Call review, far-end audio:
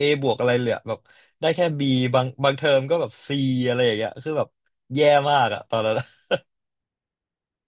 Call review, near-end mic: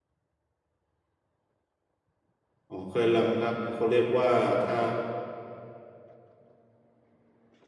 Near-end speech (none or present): present